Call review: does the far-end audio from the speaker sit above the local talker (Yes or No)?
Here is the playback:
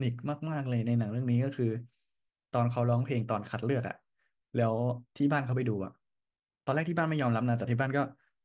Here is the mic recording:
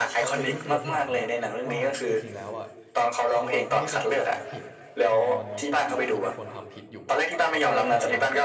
Yes